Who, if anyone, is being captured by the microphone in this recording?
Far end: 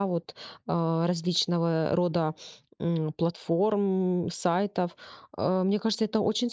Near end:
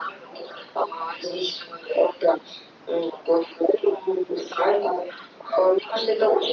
echo only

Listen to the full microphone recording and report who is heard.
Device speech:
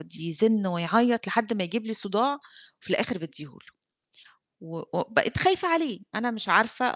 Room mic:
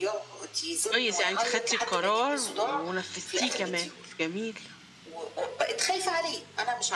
both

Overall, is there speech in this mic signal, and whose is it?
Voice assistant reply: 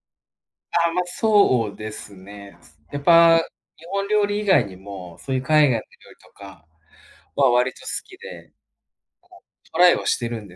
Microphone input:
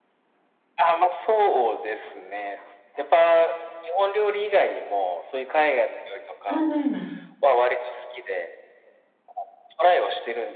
both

